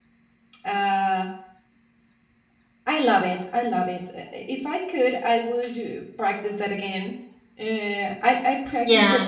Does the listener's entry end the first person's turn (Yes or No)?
No